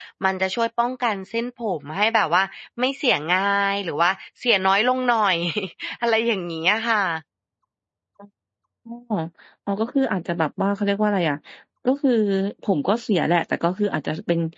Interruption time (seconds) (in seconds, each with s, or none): none